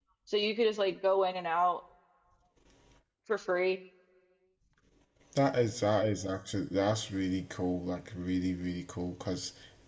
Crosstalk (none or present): none